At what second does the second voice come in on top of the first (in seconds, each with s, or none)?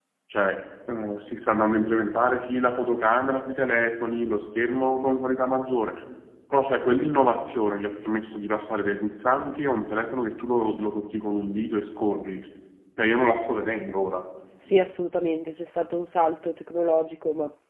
none